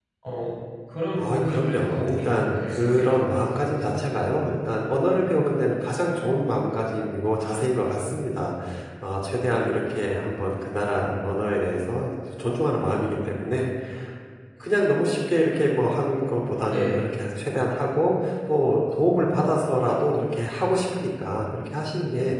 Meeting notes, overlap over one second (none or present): present